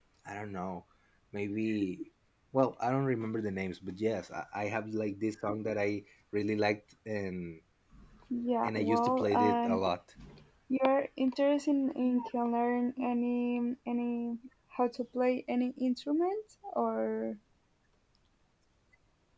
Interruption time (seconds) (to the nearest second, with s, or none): 9 s